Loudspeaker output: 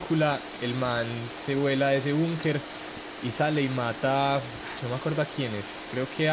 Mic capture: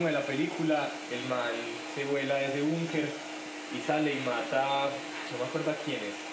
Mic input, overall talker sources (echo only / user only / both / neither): echo only